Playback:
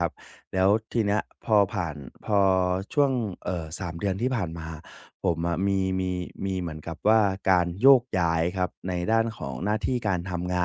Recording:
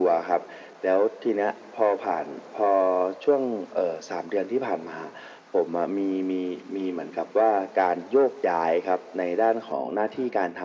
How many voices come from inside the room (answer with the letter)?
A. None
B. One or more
A